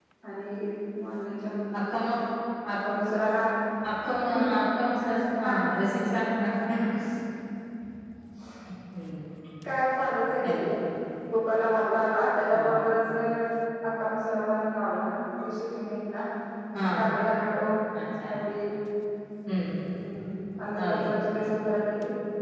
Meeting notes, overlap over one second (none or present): none